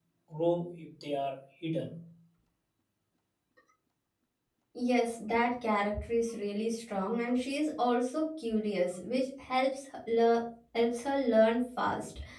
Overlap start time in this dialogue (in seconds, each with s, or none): none